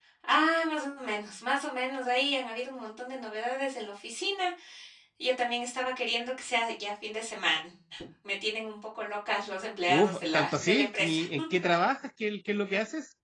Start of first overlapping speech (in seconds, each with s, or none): 9.9 s